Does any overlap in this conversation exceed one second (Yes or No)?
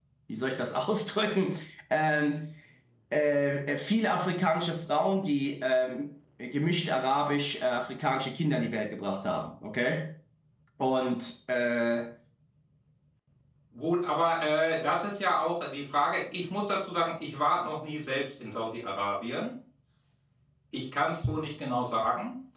No